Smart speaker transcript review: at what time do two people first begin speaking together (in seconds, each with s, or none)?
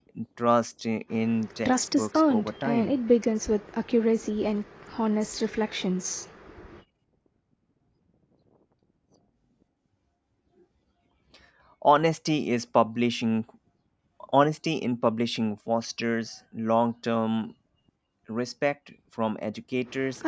1.6 s